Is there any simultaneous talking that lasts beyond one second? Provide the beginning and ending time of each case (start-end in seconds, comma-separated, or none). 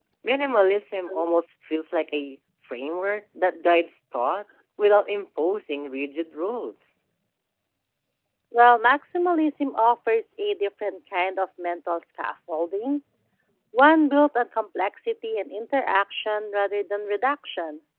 none